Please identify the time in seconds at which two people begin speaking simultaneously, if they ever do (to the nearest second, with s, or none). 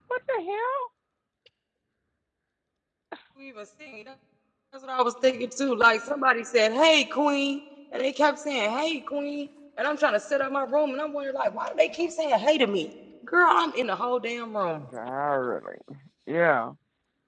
none